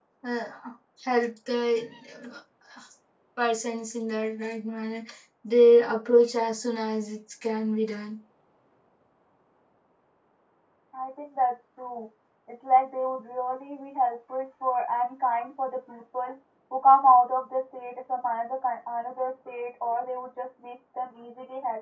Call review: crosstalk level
none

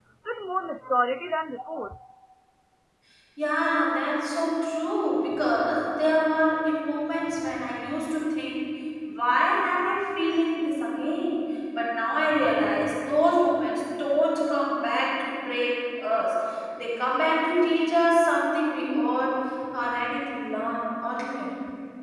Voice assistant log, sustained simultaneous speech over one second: none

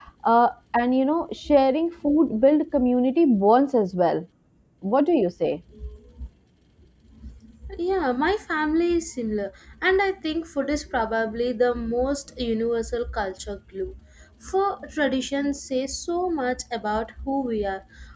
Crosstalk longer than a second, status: none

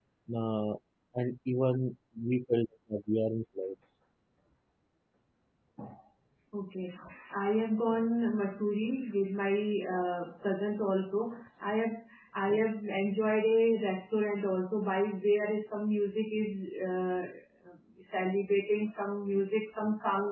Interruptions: none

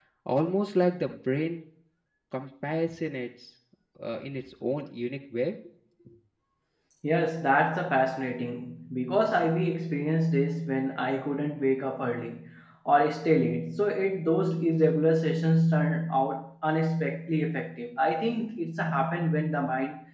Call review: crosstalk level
none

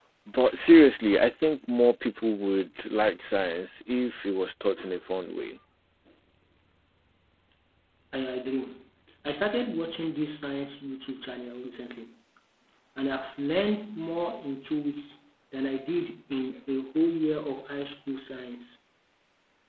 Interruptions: none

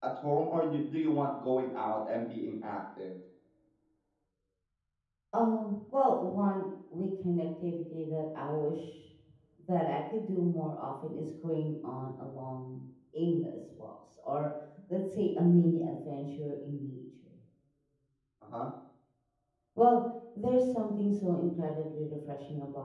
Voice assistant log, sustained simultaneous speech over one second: none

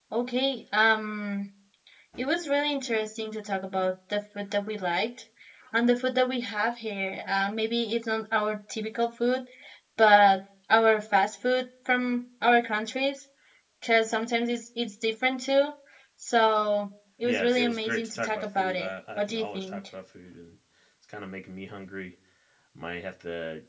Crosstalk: present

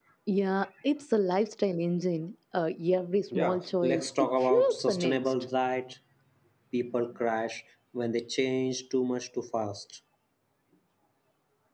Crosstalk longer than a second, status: present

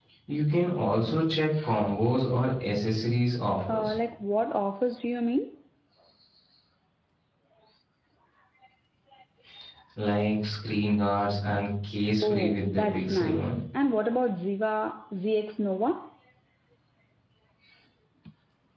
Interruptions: present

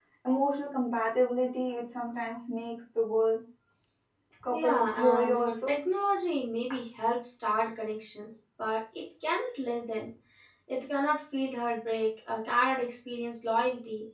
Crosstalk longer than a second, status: present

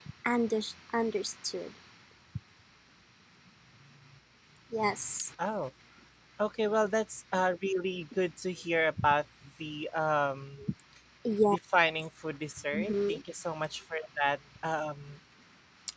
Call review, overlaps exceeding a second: none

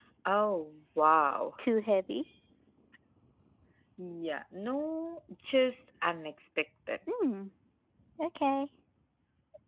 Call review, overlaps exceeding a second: none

